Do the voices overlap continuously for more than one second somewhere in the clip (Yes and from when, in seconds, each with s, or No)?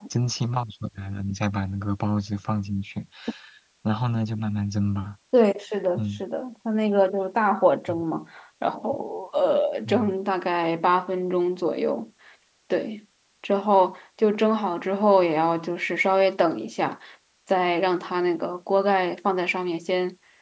No